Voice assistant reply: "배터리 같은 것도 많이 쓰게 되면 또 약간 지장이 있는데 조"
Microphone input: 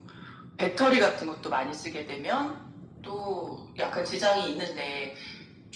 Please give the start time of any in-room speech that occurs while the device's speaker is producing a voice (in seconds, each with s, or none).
none